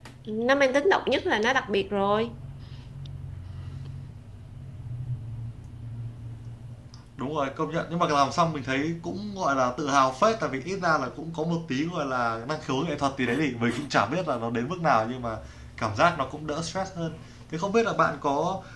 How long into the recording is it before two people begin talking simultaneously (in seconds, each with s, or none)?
none